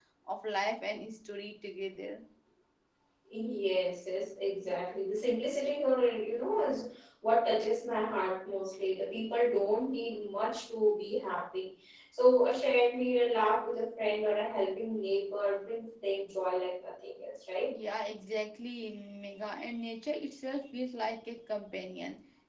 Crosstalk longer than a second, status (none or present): none